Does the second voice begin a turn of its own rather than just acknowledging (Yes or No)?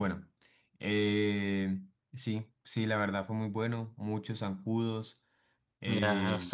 Yes